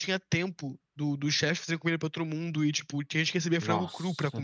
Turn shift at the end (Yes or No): Yes